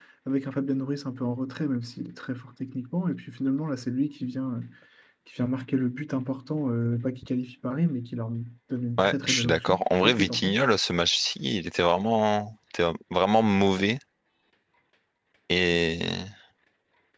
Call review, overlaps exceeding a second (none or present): present